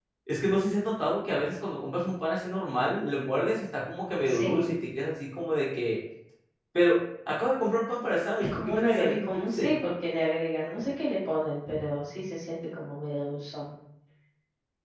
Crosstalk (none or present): present